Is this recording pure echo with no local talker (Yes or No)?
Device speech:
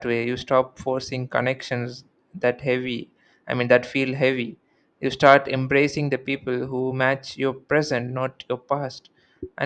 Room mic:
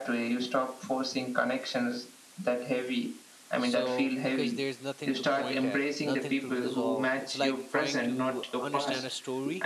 No